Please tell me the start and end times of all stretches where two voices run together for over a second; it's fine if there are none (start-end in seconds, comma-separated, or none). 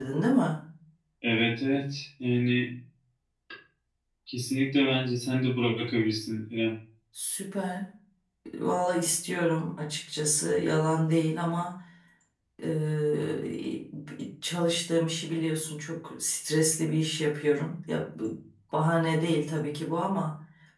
none